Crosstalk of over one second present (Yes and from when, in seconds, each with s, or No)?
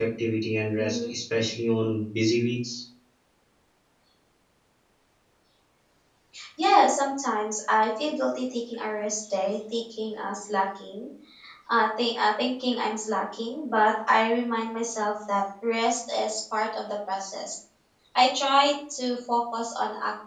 No